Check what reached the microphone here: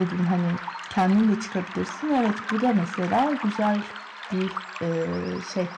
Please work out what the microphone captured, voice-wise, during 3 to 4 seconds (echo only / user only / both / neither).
user only